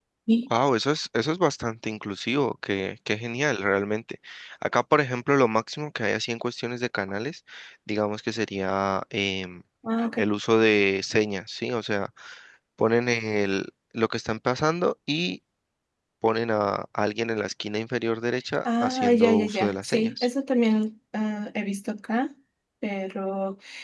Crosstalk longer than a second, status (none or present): present